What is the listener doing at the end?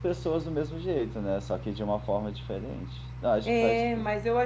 taking over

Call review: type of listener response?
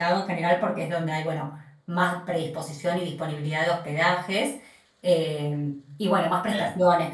listening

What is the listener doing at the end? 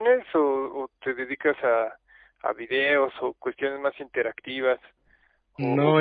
taking over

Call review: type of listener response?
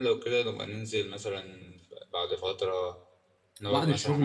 taking over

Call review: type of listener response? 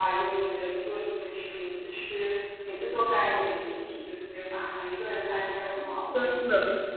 taking over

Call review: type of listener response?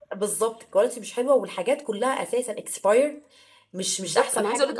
taking over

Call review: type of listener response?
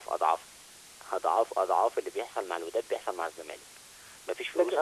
taking over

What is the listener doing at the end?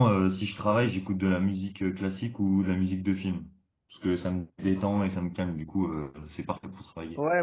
taking over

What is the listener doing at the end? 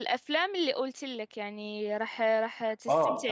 taking over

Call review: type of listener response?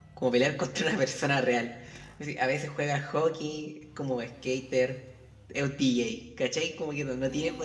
taking over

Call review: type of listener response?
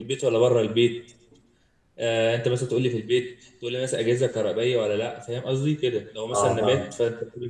listening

